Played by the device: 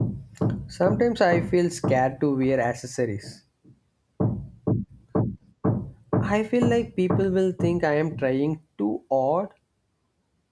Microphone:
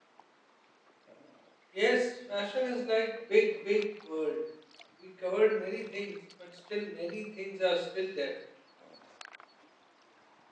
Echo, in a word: none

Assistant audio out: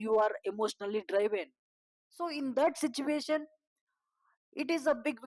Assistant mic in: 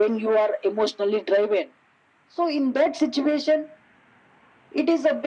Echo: present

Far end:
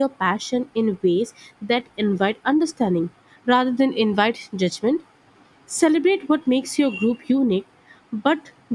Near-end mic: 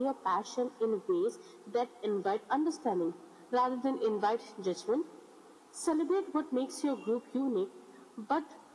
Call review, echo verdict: present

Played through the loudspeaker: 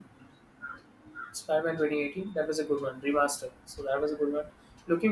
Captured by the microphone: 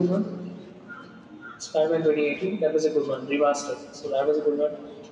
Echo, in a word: present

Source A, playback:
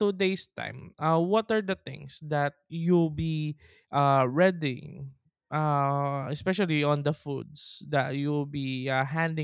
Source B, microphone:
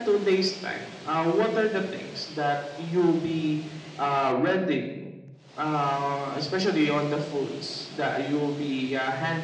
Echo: present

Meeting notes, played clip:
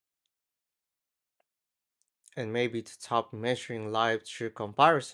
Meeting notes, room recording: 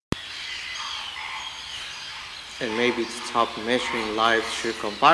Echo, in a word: present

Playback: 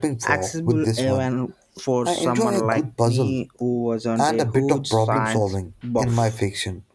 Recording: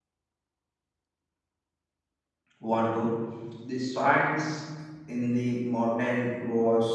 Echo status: none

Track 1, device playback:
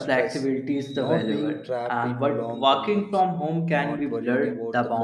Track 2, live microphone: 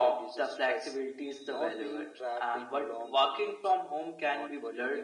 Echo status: present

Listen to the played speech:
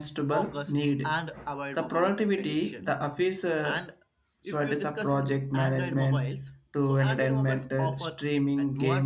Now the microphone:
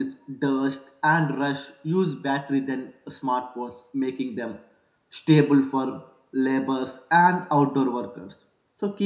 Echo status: none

